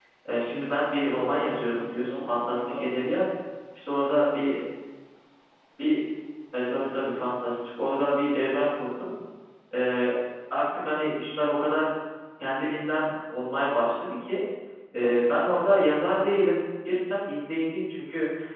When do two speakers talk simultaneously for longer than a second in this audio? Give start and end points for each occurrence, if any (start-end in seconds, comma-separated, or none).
1.0-3.2